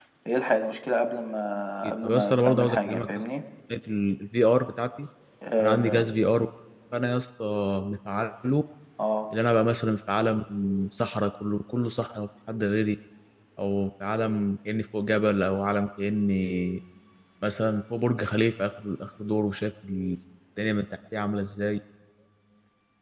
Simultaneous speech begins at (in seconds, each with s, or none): 2.0 s